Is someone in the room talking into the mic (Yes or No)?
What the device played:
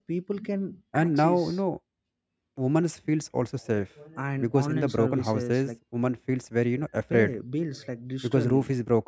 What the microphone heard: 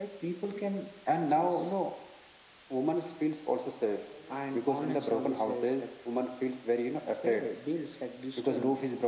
No